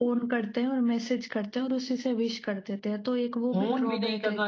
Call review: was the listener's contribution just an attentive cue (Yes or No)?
No